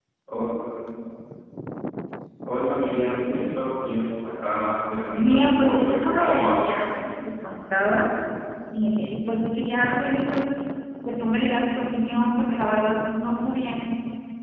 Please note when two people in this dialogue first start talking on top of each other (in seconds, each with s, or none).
5.1 s